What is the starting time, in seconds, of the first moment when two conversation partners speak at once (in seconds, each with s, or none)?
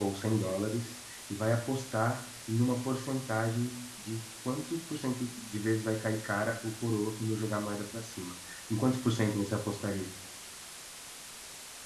none